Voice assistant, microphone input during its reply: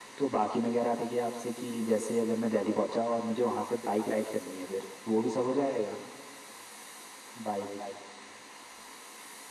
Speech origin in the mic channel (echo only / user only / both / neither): echo only